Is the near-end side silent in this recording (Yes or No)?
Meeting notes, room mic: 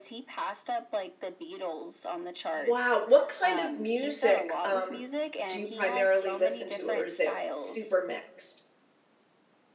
No